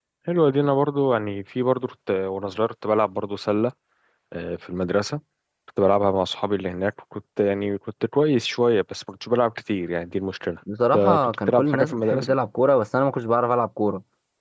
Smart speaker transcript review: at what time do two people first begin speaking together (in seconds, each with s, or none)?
10.7 s